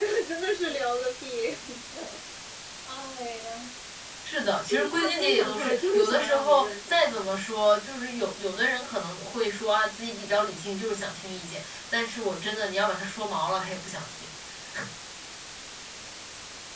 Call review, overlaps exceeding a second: present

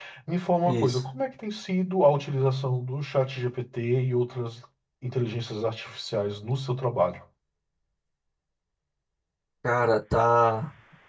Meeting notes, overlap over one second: none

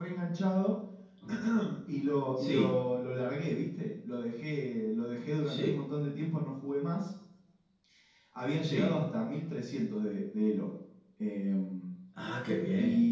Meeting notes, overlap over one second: none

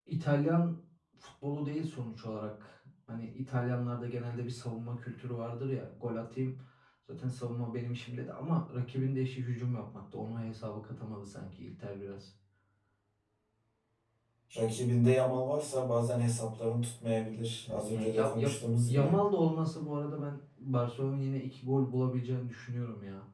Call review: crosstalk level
present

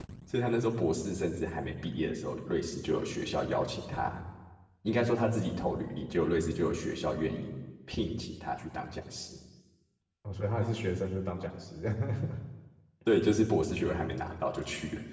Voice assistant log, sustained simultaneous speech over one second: none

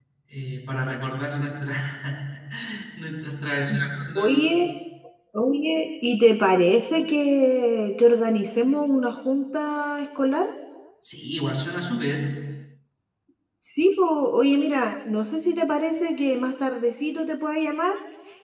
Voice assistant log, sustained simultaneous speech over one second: none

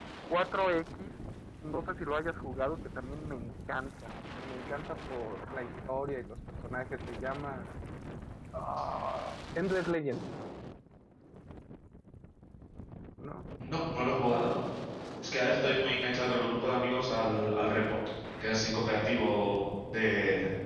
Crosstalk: none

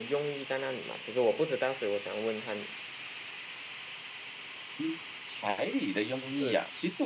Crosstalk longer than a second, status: none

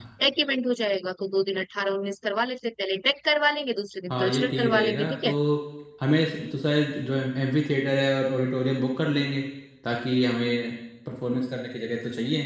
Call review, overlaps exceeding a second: present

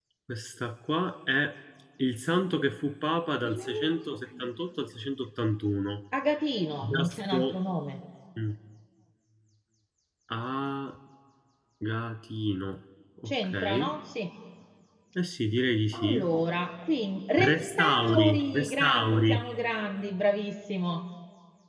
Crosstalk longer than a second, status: present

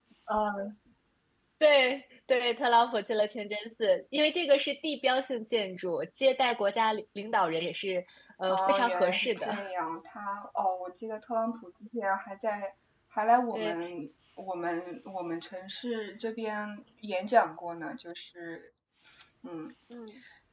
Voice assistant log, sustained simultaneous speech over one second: present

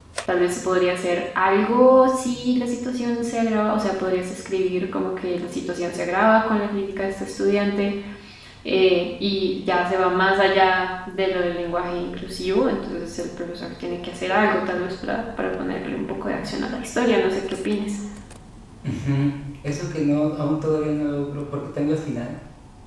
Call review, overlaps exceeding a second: none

